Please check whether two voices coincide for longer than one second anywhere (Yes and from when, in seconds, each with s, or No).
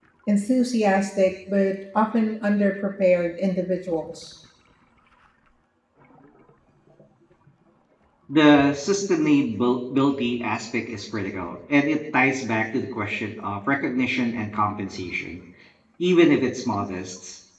No